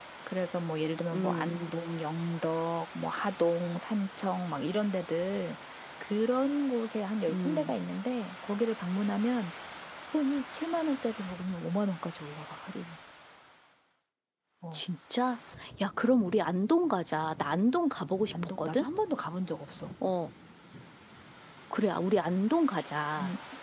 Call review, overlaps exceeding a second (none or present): none